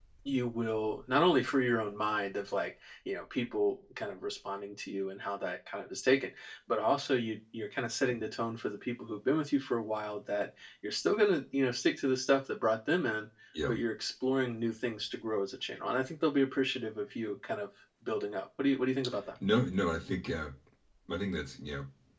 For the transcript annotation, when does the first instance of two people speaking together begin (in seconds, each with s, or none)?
none